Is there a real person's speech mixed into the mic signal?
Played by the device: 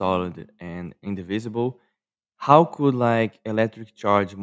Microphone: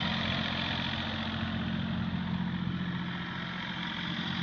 No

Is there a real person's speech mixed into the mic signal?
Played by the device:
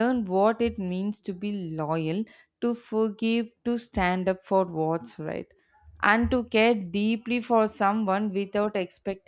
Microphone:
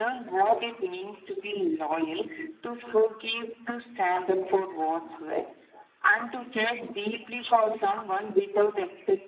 No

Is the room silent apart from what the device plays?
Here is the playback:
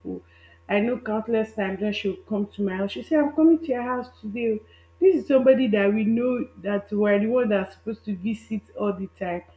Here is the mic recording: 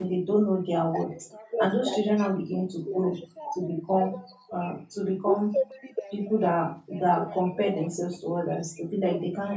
No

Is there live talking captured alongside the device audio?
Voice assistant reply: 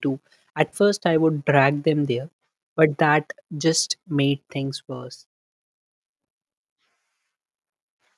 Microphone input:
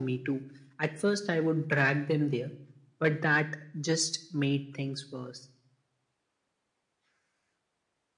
No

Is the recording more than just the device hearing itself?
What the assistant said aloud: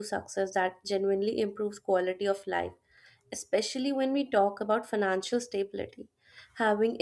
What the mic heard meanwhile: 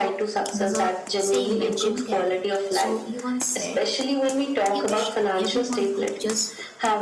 Yes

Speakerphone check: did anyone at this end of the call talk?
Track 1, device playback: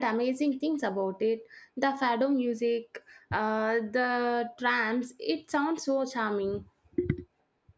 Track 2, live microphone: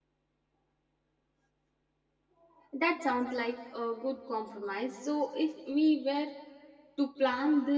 Yes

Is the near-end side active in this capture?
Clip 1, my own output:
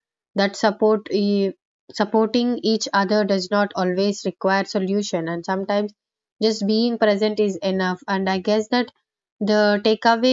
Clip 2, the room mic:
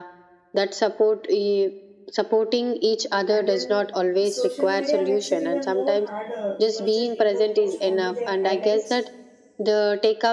Yes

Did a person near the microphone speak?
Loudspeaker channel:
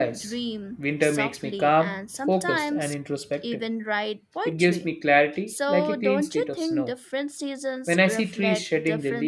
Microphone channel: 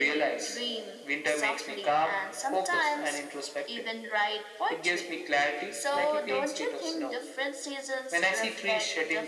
No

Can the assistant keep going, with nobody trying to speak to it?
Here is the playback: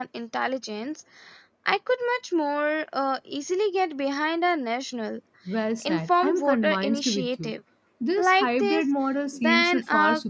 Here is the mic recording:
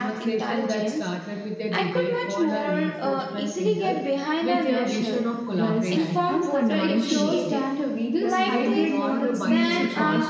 No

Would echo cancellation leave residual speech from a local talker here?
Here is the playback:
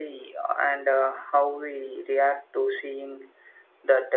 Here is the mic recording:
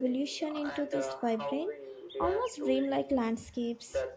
Yes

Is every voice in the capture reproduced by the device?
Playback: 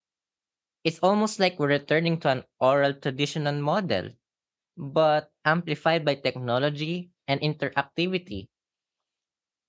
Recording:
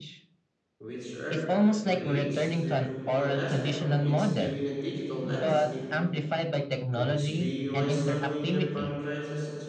No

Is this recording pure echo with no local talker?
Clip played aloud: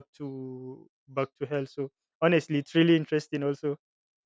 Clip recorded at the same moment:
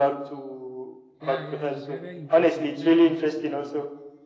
No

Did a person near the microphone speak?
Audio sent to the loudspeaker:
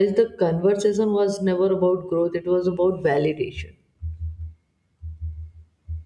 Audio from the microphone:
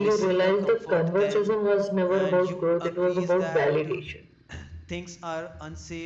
Yes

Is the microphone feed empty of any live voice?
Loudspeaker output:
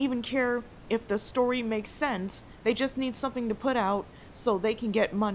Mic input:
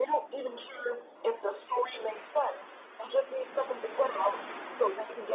Yes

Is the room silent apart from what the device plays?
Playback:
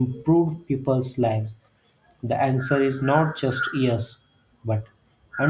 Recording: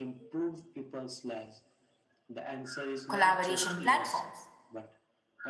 No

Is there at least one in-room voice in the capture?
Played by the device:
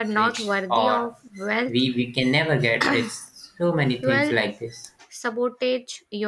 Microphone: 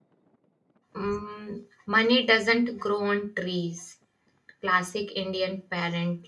Yes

